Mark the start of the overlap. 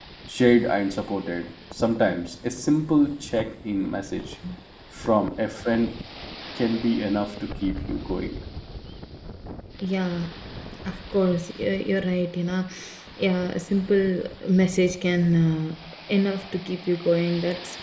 none

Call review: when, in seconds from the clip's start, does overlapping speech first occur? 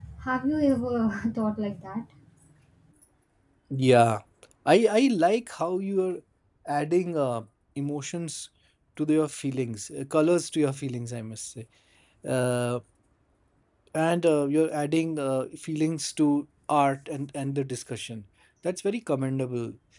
none

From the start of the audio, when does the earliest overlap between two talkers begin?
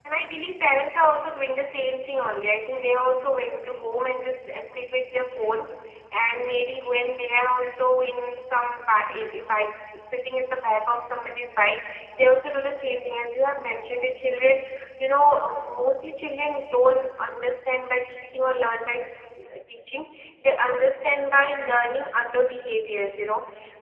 none

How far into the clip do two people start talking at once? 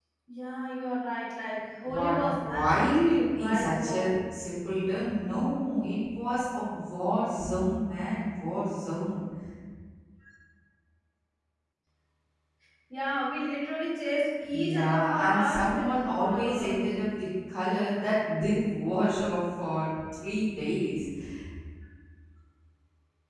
2 s

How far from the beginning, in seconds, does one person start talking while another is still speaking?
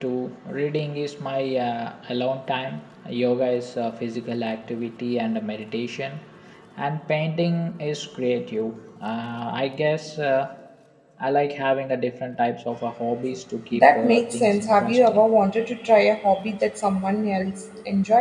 14 s

